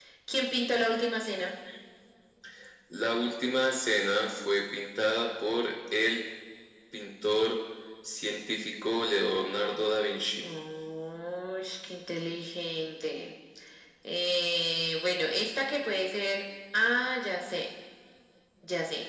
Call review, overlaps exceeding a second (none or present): none